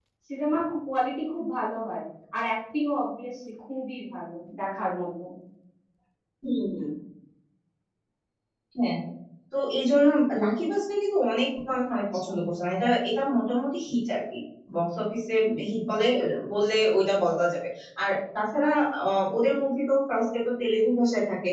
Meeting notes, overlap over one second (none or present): none